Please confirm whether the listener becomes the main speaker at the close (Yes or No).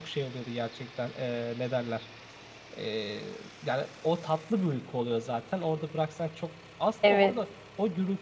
No